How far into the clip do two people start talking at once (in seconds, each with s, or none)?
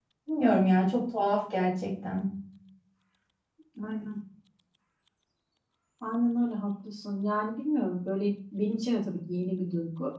none